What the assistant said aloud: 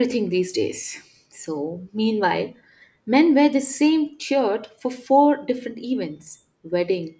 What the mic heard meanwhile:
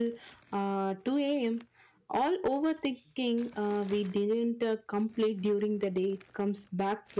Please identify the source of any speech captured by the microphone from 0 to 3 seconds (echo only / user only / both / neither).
user only